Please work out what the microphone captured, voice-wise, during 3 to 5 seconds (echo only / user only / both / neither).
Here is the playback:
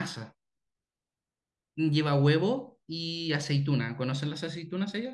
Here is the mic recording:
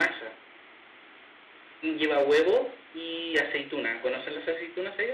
echo only